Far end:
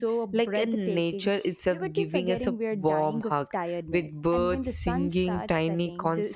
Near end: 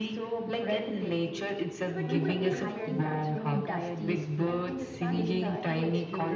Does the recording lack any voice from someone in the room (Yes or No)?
No